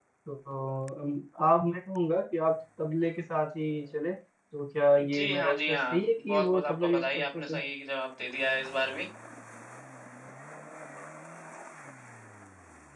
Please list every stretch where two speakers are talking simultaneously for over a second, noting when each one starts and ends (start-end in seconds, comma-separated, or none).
5.1-7.6